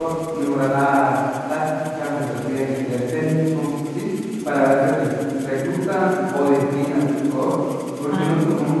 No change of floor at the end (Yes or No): Yes